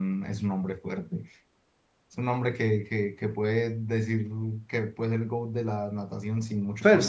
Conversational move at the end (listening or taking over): taking over